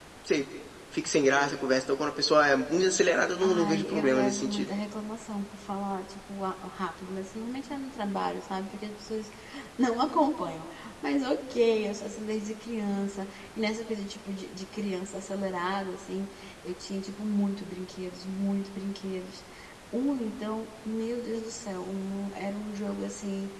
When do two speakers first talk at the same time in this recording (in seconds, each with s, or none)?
3.4 s